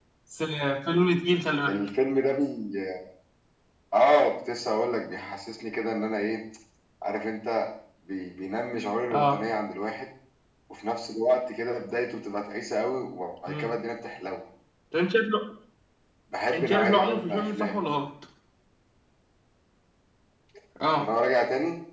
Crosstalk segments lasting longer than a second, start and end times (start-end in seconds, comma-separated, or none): 16.5-17.8